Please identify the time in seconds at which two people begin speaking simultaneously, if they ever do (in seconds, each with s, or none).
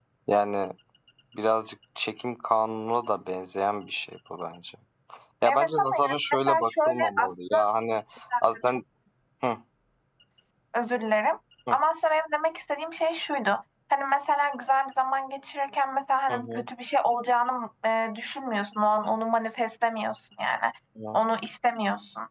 5.5 s